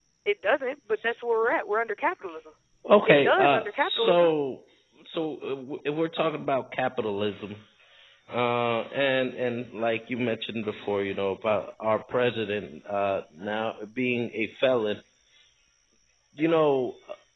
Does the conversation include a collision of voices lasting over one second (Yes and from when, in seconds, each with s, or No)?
Yes, from 3.1 s